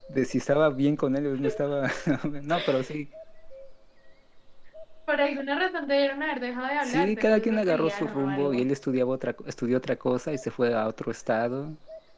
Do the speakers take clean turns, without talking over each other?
No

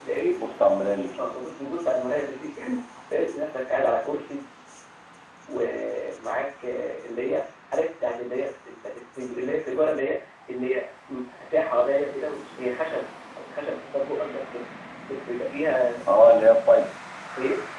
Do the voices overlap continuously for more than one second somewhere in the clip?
No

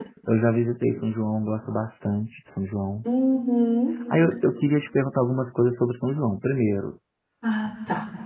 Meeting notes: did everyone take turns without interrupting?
Yes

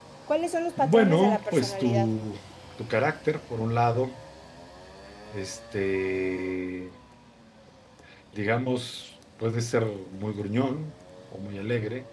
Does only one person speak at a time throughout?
No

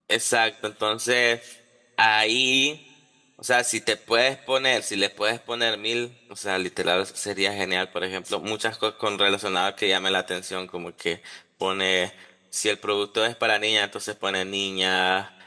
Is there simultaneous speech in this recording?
No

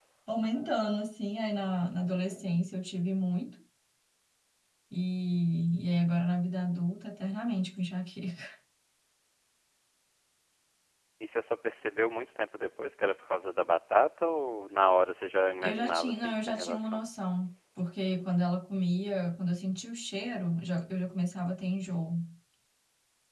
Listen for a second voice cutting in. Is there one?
Yes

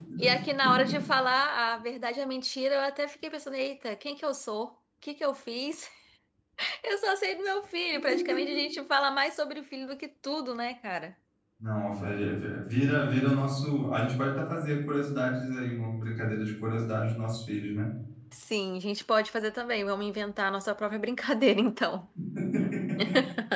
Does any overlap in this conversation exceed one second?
No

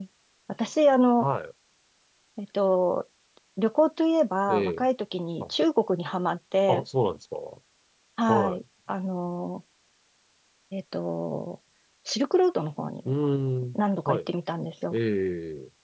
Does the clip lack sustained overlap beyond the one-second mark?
Yes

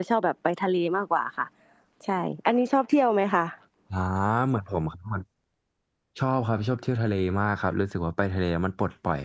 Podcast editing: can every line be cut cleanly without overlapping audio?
Yes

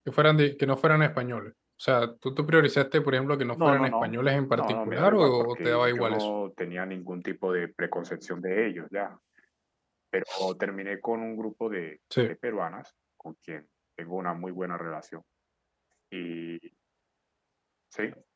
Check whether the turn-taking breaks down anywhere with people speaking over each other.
Yes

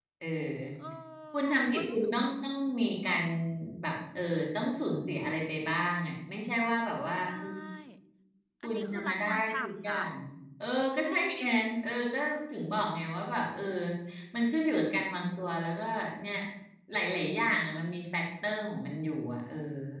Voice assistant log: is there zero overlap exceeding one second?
No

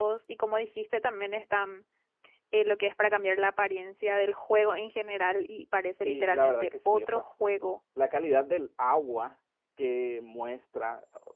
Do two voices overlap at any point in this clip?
Yes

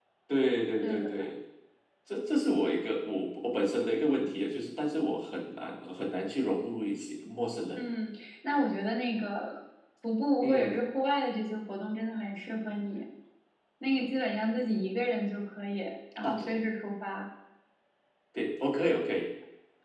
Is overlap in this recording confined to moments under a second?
Yes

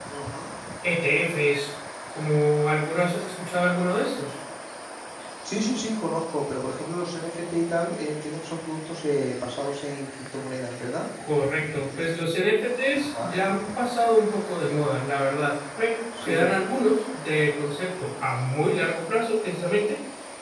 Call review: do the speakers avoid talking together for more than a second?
Yes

